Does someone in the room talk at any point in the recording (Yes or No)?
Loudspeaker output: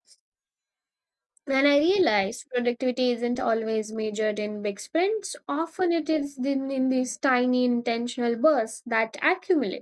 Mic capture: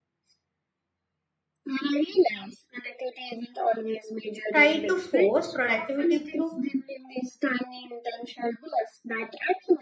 Yes